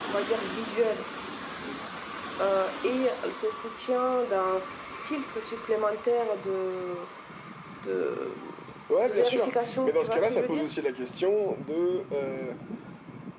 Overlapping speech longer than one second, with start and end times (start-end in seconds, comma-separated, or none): 9.0-10.6